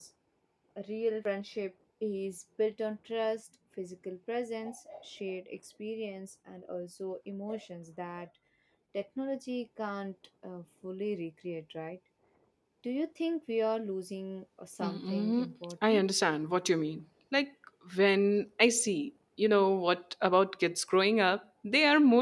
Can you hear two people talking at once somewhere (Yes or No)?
Yes